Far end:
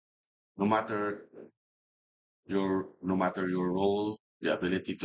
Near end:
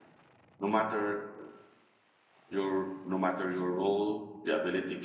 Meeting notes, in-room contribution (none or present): none